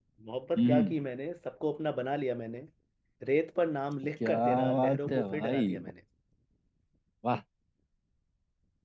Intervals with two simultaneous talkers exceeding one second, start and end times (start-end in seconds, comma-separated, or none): 4.2-5.7